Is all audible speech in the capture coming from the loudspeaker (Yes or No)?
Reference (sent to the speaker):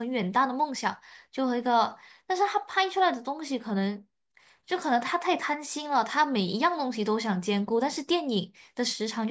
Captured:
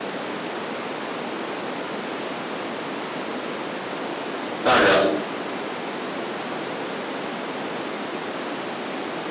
No